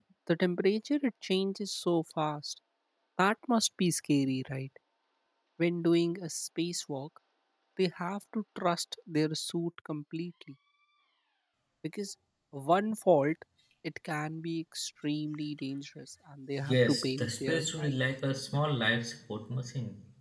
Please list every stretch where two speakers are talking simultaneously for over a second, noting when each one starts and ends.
16.7-18.0

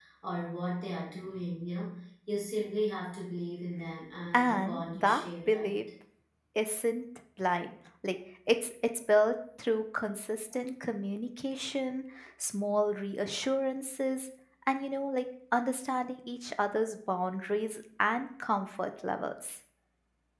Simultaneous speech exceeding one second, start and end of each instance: 4.3-5.8

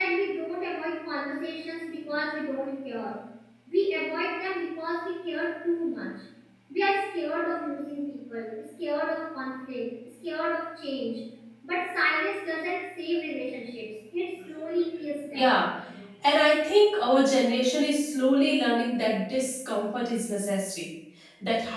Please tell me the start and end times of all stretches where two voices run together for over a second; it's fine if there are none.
none

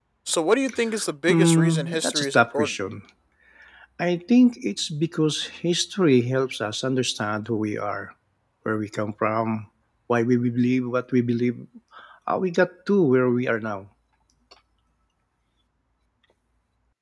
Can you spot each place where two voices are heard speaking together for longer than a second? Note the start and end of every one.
1.3-2.7

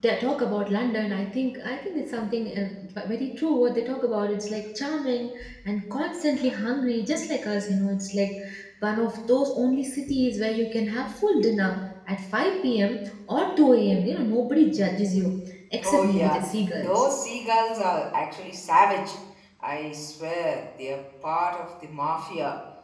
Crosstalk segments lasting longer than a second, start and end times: 15.8-17.0

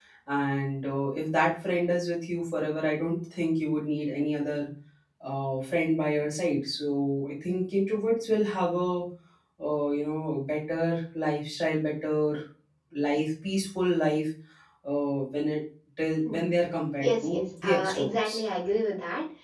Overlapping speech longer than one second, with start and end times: 17.0-18.3

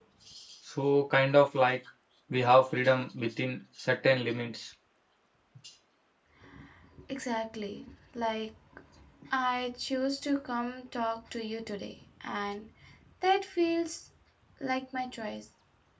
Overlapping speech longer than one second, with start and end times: none

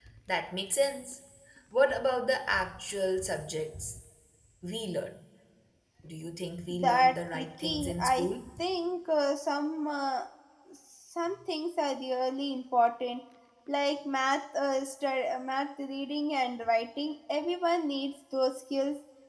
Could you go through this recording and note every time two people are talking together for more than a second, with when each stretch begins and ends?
6.7-8.3

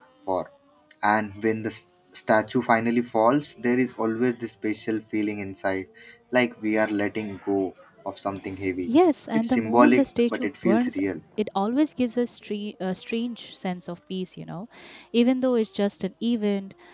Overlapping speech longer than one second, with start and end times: 9.3-11.0

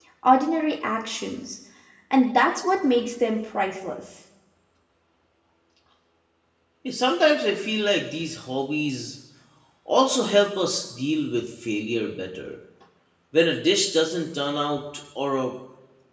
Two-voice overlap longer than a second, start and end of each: none

